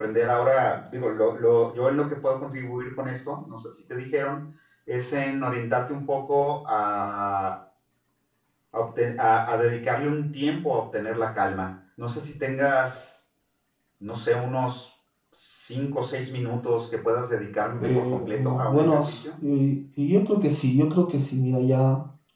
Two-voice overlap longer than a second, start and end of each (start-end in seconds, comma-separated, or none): 17.8-19.1